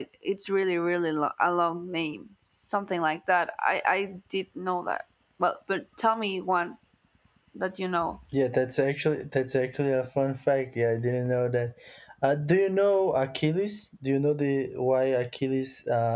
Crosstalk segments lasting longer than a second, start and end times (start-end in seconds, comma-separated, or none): none